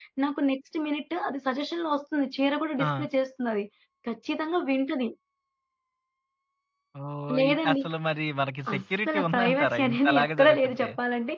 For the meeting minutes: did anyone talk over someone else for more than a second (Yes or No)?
Yes